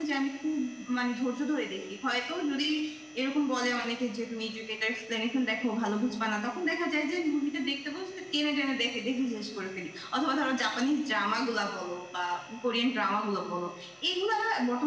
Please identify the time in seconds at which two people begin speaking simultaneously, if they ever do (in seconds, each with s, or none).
none